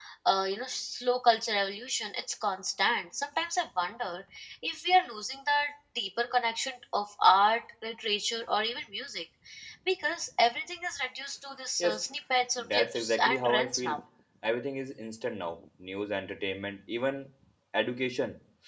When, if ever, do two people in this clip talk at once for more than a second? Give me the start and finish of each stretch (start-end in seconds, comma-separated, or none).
12.6-14.0